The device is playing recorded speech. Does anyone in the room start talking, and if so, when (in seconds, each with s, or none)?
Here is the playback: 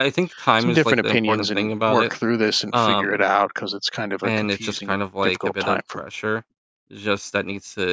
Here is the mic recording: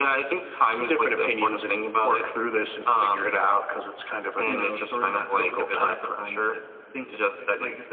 4.4 s